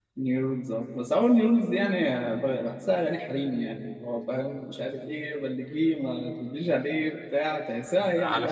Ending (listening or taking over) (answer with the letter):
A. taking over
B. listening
A